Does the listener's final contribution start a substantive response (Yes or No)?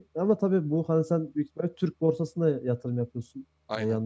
No